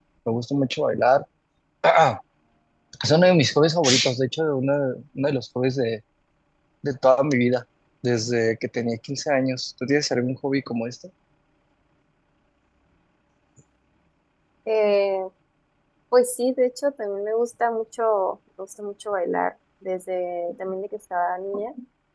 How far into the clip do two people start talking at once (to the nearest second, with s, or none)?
none